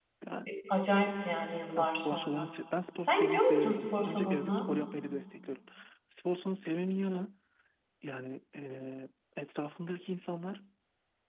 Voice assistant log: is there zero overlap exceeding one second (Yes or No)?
No